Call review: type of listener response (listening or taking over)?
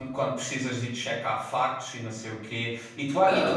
listening